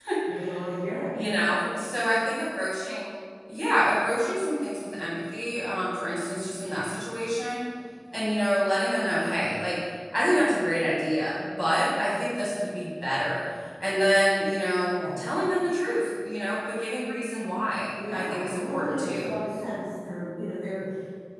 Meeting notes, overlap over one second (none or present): present